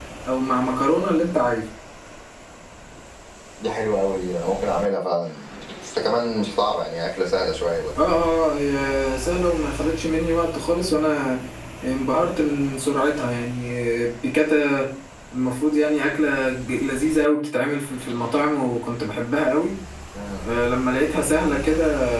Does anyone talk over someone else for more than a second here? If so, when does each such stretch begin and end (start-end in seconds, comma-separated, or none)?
none